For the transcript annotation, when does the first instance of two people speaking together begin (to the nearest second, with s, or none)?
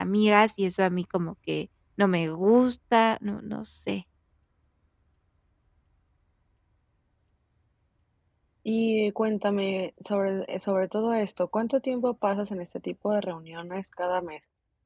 none